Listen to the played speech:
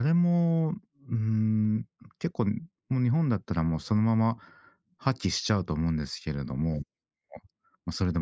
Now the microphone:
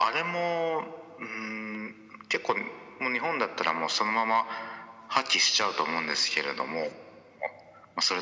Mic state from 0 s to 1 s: echo only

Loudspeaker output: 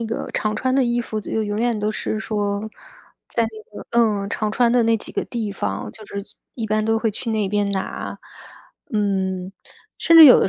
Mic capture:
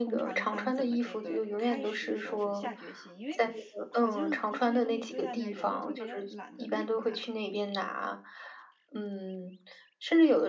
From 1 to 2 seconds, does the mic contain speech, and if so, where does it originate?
both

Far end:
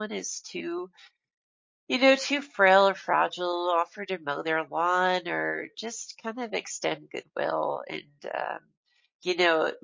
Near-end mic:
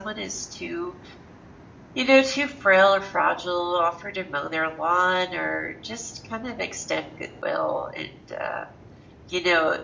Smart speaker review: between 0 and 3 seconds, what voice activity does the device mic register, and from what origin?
echo only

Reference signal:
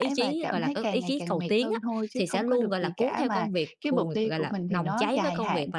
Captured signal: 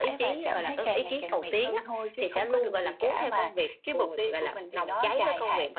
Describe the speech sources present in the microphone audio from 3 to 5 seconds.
echo only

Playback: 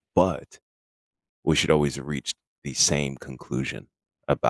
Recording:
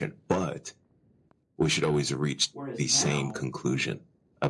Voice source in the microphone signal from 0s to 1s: echo only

